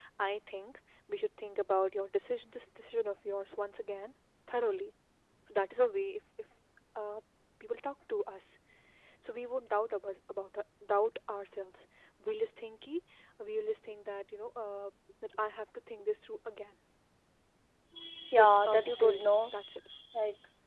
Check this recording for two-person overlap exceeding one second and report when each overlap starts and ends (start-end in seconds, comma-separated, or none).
18.3-19.5